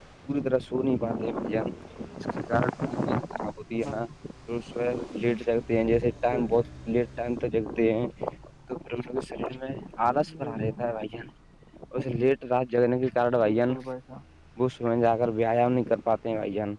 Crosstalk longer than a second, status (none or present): none